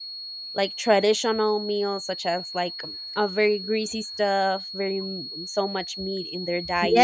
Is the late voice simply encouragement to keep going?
No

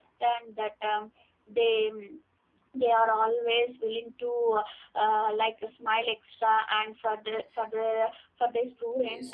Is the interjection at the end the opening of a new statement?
No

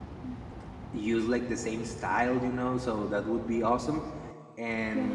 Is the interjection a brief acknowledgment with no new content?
Yes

